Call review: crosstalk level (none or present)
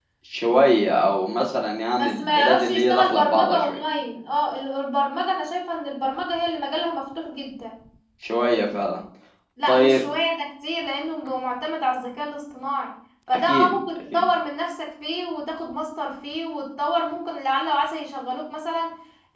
present